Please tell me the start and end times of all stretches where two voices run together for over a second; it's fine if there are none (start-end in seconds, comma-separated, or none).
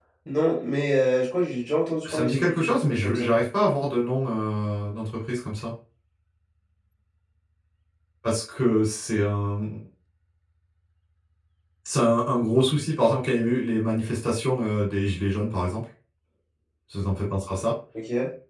2.0-3.3